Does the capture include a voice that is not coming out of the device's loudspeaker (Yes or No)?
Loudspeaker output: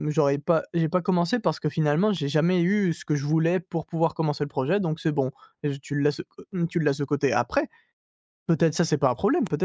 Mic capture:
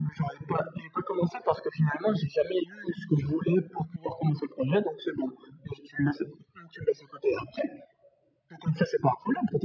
No